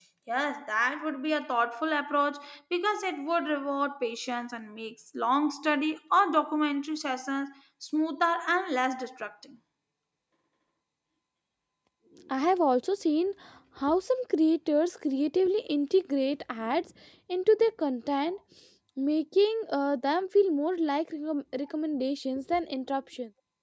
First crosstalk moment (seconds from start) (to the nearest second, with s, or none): none